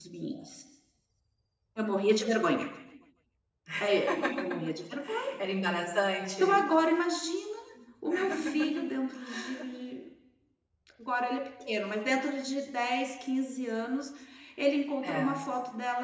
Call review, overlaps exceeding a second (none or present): none